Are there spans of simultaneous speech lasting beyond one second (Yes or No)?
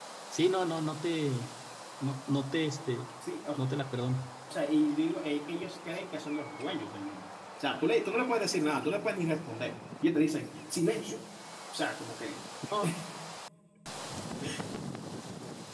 No